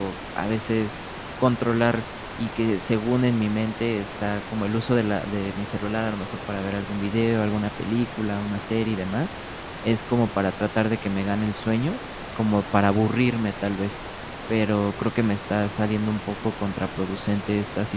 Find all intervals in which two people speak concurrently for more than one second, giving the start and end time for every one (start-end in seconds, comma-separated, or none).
none